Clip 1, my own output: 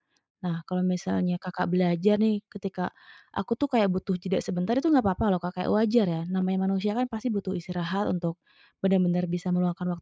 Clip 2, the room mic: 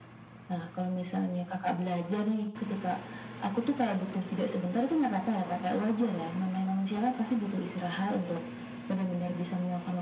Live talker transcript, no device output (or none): none